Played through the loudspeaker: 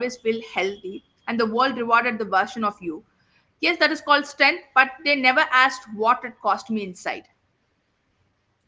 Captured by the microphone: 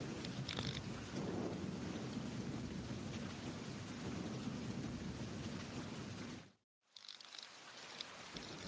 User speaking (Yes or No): No